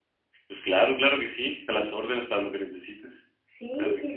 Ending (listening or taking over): taking over